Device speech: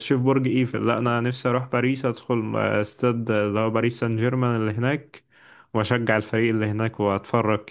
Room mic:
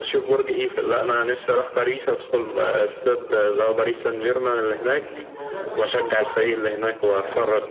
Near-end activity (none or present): present